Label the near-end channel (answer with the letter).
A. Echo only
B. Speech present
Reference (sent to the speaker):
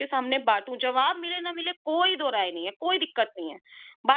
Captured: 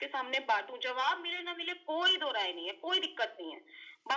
A